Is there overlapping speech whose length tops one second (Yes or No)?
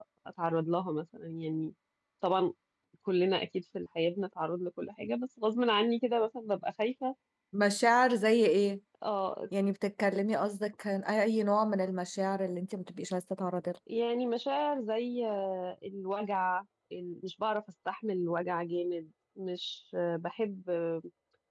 No